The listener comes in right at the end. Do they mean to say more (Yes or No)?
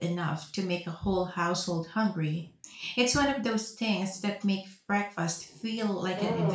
Yes